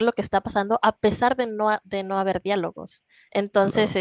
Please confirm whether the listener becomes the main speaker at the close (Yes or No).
No